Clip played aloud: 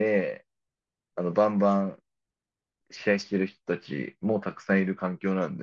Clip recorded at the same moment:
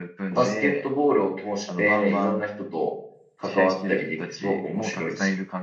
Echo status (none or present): present